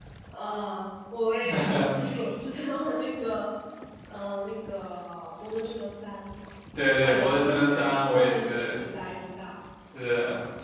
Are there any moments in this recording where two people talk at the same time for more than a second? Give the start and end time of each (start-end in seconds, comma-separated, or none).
7.0-8.8